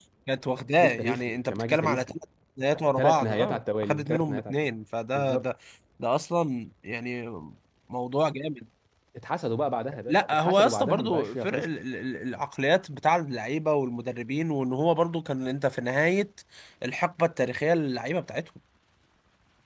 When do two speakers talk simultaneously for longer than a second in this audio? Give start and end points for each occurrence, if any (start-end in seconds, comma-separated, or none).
0.8-2.1, 3.0-4.5, 10.1-11.7